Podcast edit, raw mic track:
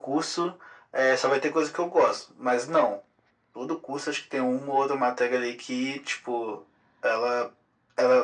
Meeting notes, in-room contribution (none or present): none